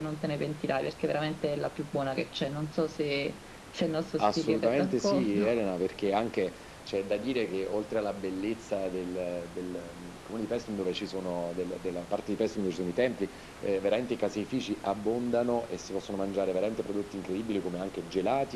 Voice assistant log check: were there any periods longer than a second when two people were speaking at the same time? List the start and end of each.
4.2-5.4

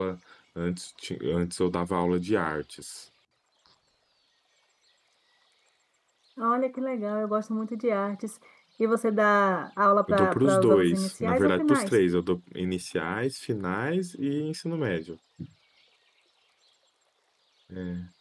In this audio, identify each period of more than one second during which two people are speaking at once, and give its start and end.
10.1-12.0

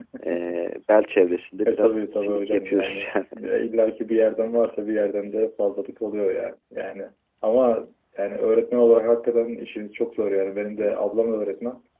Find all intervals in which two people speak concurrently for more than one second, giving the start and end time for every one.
1.6-3.1

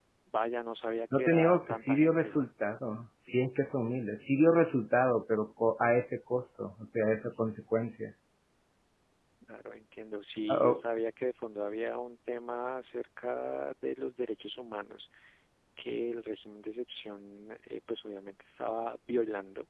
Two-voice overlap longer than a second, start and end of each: 1.1-2.4

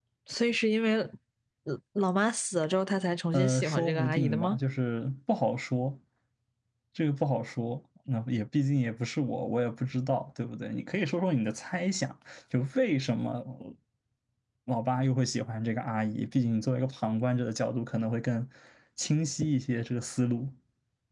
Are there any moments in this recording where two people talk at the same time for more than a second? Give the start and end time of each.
3.3-4.6

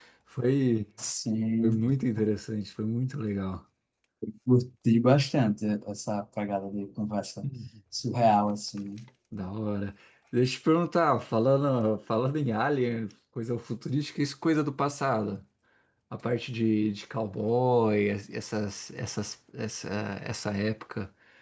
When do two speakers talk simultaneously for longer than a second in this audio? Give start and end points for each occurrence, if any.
none

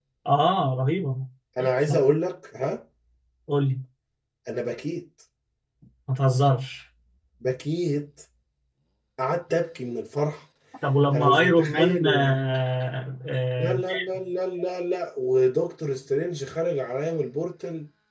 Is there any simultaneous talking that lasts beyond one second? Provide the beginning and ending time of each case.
11.1-12.3

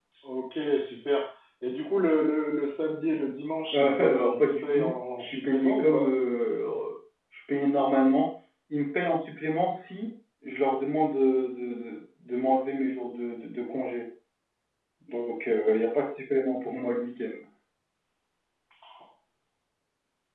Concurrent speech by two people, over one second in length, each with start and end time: 3.7-6.1

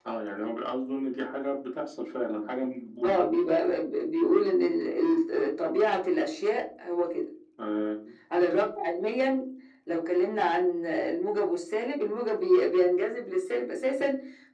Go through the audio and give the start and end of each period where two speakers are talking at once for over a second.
none

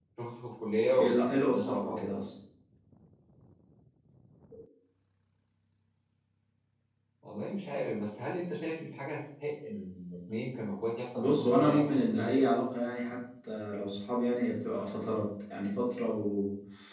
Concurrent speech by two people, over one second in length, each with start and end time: 1.0-2.2, 11.2-12.4

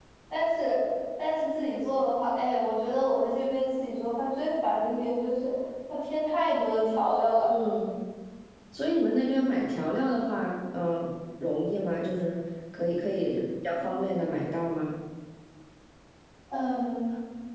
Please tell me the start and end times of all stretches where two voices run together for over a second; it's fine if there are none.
none

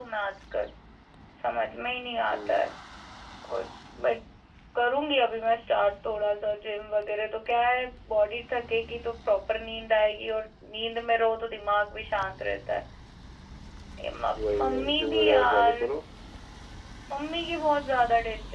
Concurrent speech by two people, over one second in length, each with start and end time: 14.5-15.7

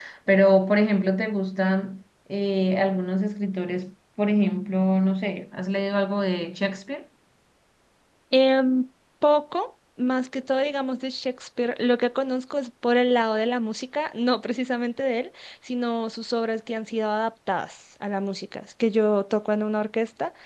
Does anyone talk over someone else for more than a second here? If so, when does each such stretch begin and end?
none

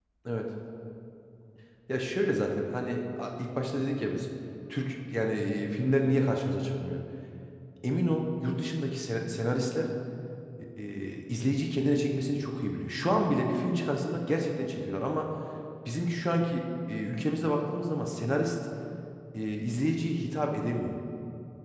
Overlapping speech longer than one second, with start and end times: none

